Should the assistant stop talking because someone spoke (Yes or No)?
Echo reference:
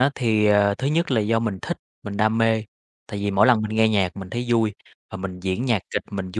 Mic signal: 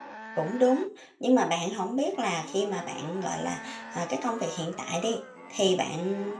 Yes